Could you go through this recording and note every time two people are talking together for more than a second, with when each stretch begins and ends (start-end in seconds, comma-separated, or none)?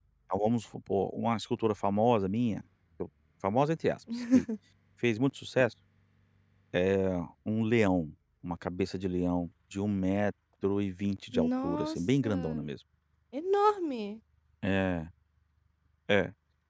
11.3-12.7